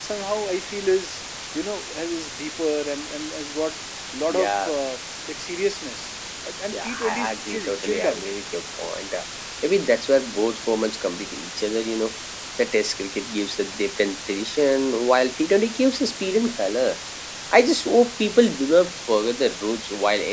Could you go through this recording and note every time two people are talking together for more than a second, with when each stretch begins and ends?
6.7-8.3

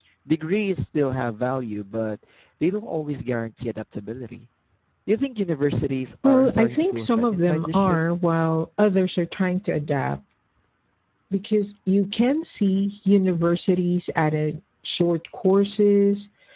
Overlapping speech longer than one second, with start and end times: 6.2-8.0

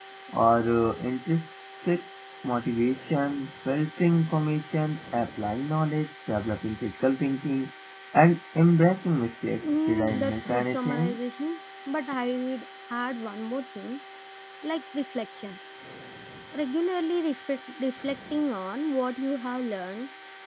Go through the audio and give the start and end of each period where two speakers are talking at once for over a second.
9.8-11.2

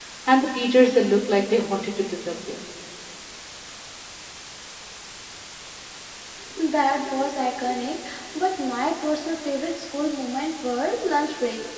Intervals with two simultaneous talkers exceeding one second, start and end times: none

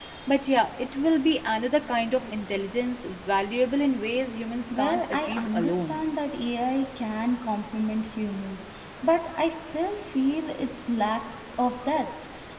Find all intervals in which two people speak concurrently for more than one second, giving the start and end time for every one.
4.8-6.0

